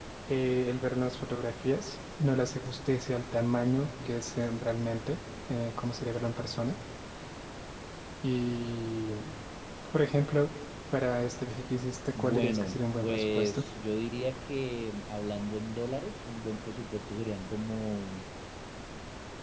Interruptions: present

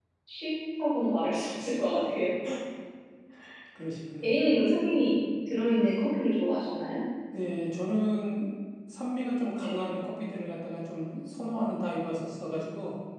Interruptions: none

